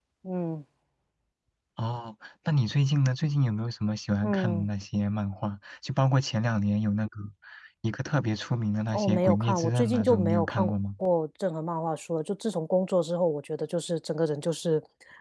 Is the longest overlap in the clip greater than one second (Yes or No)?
Yes